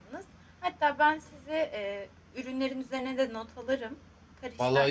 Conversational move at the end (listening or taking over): taking over